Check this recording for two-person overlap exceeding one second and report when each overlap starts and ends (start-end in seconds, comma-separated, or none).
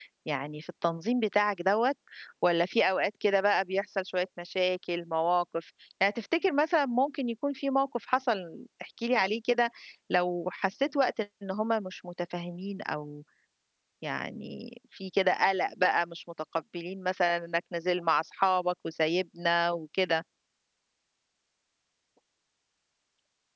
none